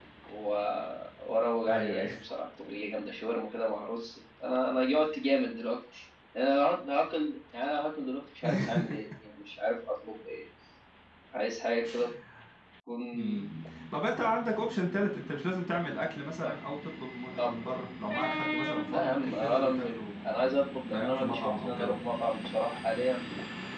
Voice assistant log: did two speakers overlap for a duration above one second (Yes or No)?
Yes